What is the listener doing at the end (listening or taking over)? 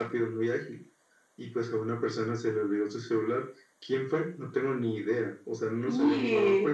listening